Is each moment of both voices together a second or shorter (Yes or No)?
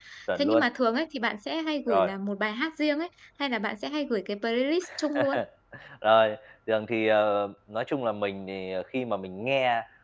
Yes